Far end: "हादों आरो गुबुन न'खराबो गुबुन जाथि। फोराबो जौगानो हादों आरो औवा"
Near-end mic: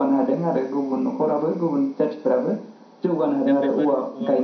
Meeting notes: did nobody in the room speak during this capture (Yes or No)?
No